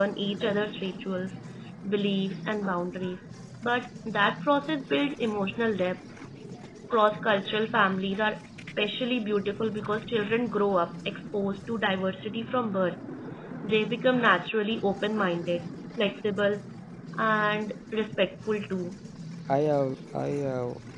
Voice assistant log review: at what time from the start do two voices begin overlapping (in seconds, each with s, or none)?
none